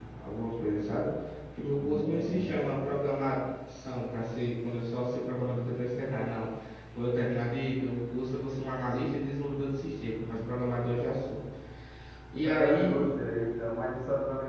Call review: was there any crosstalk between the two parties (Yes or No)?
Yes